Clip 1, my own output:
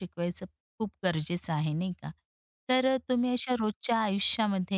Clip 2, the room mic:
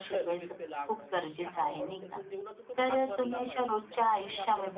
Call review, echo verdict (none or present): present